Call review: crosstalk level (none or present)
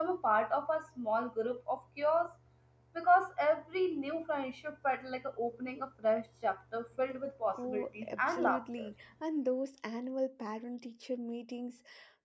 present